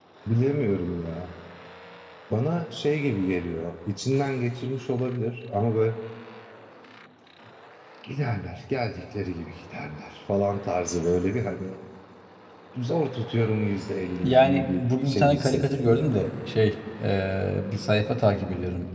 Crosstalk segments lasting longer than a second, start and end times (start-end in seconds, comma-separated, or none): 14.2-16.1